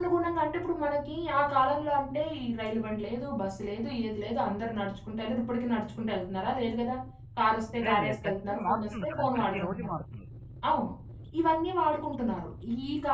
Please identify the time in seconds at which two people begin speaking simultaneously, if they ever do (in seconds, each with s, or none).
7.8 s